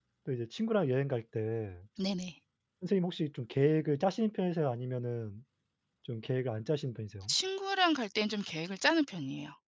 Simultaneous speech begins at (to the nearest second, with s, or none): none